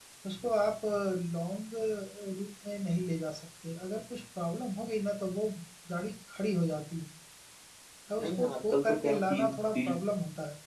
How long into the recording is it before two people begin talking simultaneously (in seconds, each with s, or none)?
8.2 s